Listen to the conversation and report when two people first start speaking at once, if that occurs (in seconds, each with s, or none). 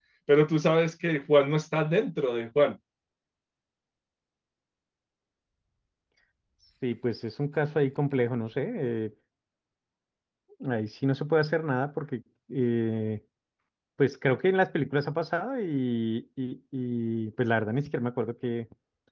none